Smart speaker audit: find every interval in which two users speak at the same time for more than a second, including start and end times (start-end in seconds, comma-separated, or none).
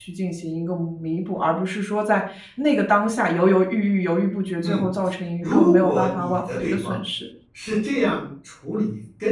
5.4-7.0